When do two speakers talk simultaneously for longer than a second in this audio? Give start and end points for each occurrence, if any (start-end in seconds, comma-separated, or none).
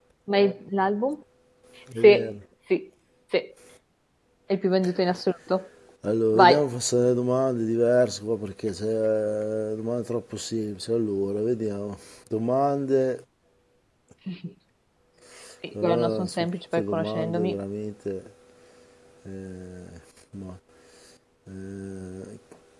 15.8-17.6